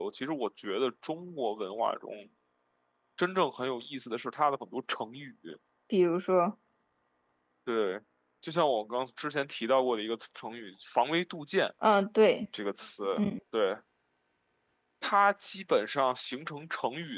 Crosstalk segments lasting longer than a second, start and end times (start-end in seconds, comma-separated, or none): none